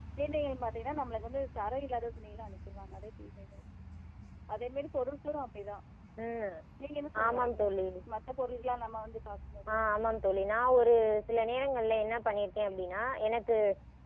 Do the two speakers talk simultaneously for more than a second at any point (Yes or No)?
No